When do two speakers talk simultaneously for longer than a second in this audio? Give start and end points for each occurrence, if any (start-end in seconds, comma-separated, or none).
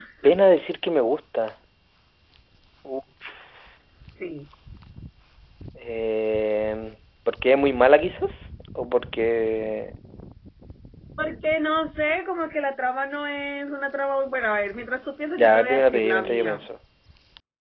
15.4-16.7